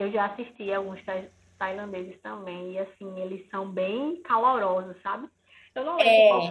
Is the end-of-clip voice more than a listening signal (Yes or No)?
No